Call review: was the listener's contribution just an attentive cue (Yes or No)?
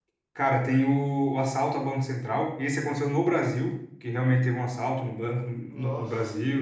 Yes